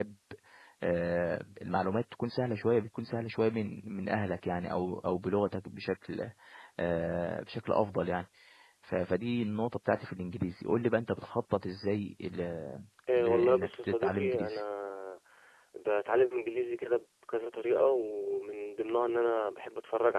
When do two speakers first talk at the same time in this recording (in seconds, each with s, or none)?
13.1 s